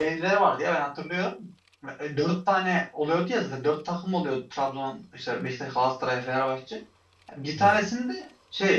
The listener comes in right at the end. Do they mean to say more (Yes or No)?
No